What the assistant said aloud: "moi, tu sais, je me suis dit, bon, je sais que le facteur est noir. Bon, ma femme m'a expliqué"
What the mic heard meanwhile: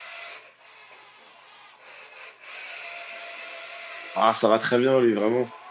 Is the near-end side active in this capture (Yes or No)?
Yes